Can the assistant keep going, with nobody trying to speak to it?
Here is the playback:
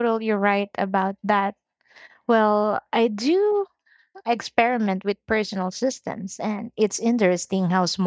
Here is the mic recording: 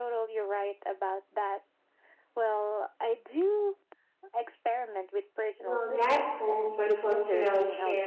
No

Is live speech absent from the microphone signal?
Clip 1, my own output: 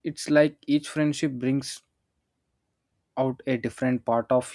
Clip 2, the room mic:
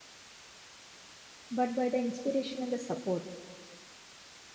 No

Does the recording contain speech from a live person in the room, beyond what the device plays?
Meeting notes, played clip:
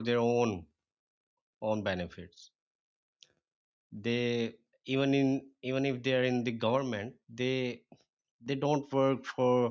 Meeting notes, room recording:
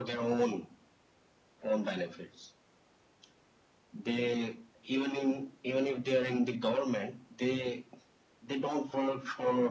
No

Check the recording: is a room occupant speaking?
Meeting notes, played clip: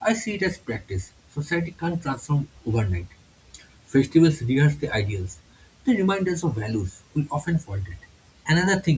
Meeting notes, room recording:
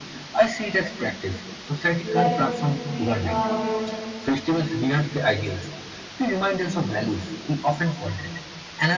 Yes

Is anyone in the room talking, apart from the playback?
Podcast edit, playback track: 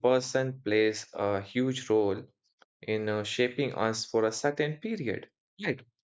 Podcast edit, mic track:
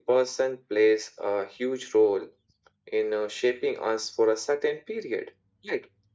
No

